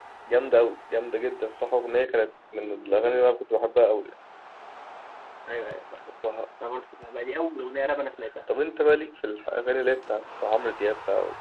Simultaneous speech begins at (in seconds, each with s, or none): none